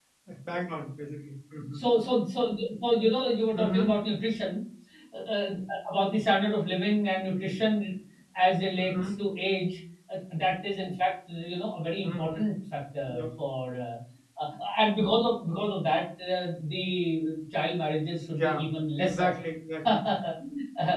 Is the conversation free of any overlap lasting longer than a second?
Yes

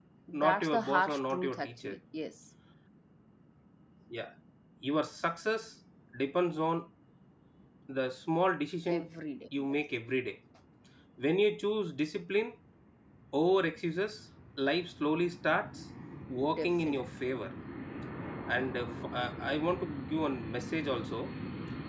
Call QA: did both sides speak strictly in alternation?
No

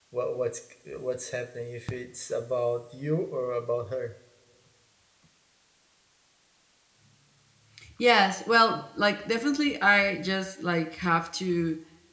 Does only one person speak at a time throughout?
Yes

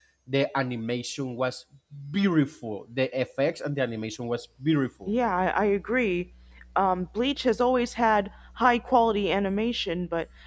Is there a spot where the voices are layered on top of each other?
No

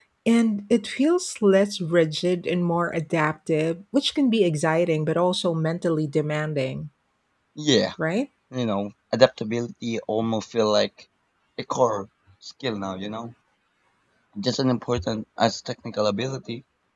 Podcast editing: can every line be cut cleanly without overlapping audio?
Yes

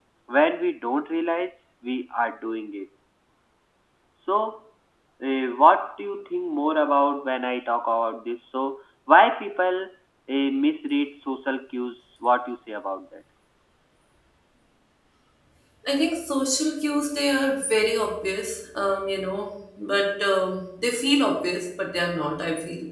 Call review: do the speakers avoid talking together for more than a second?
Yes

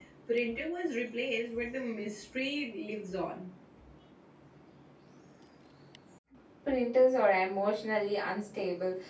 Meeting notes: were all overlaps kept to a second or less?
Yes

